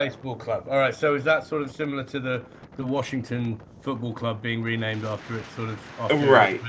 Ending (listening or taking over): taking over